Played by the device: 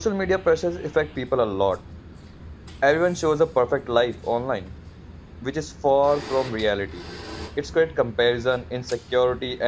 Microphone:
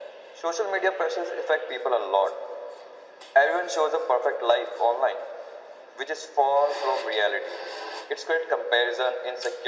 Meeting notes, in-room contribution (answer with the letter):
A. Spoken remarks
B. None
B